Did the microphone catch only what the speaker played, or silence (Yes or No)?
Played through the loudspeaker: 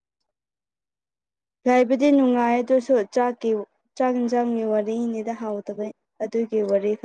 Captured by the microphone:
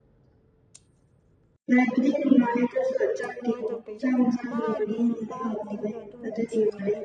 No